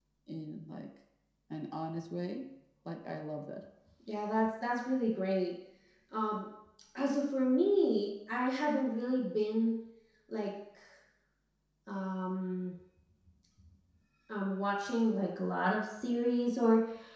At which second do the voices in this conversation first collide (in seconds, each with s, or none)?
none